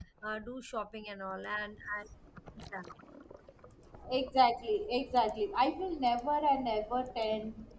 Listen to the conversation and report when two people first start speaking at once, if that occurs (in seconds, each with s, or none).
none